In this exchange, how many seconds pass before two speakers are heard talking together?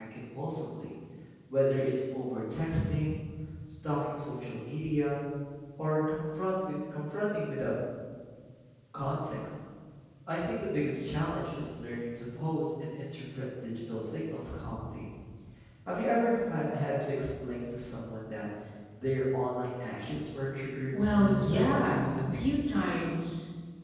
20.9 s

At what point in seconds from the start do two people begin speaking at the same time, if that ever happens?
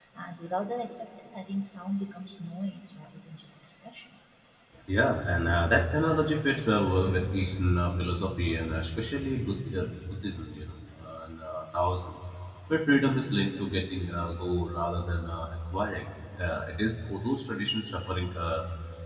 none

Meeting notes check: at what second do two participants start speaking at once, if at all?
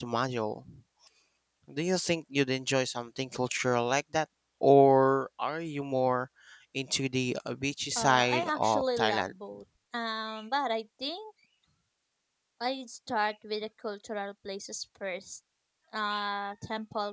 8.0 s

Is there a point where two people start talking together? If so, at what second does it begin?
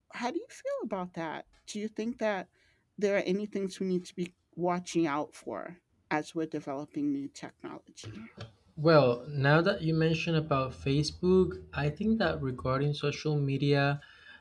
none

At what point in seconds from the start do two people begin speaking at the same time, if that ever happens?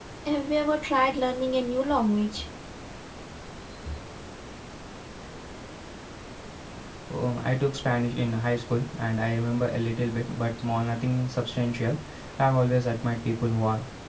none

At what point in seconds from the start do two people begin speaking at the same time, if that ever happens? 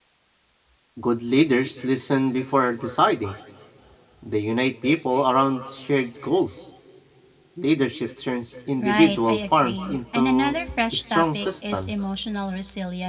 8.8 s

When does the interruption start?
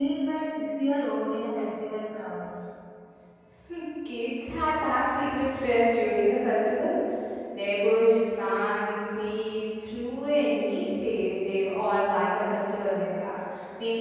none

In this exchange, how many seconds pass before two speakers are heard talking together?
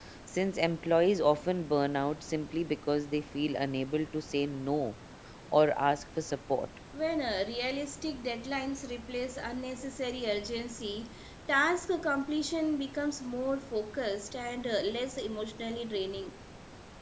none

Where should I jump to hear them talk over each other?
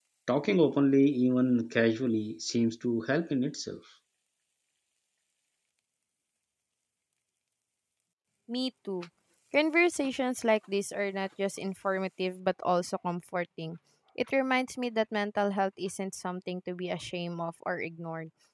none

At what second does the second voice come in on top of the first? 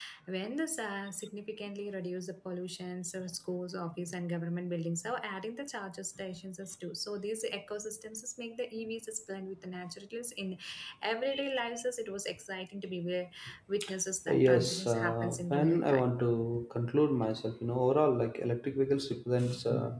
14.2 s

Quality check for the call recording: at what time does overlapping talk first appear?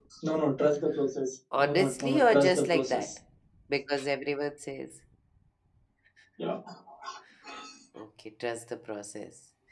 1.5 s

